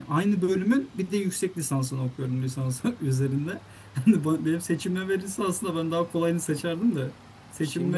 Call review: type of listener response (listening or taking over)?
listening